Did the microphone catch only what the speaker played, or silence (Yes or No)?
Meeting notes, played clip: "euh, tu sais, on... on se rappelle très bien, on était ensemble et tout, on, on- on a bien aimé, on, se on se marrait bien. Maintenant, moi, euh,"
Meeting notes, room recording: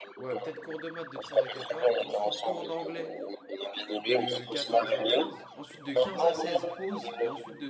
No